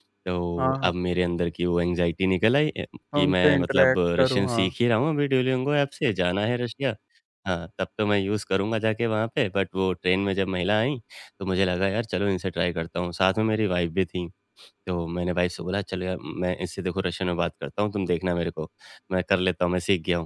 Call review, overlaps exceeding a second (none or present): present